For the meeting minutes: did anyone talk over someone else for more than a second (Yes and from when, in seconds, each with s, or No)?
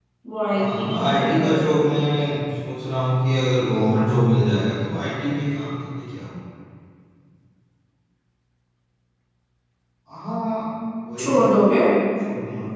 Yes, from 0.6 s